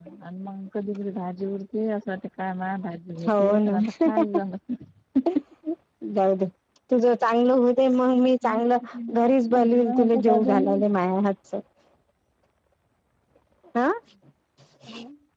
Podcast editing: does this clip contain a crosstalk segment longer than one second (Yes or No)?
Yes